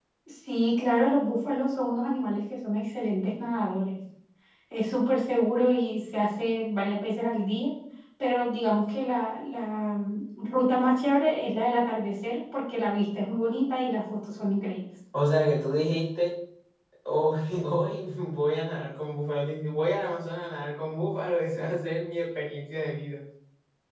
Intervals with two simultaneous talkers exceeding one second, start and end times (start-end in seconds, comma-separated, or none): none